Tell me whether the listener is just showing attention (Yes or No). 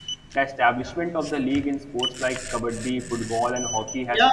No